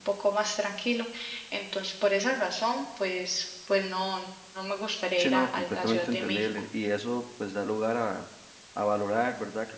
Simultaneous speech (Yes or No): Yes